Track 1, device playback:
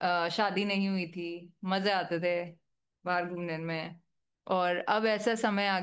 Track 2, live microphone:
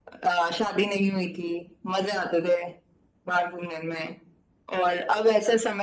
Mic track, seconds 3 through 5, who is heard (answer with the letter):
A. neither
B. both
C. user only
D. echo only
D